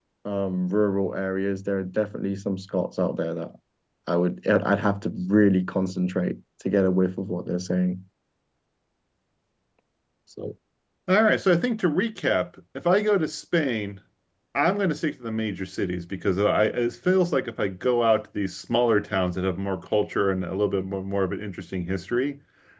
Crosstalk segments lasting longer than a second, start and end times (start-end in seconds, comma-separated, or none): none